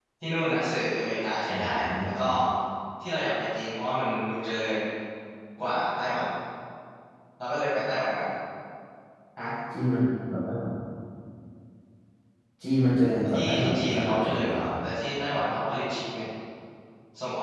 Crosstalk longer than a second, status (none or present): present